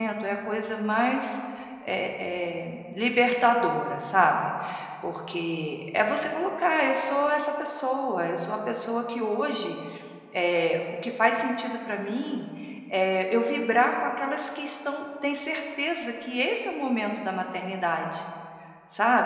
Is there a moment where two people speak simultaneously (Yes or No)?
No